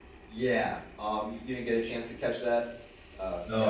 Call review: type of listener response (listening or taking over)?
taking over